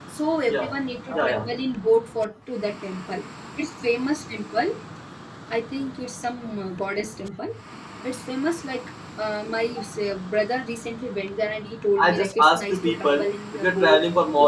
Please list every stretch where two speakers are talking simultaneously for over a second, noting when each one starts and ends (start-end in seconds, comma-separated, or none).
12.0-14.0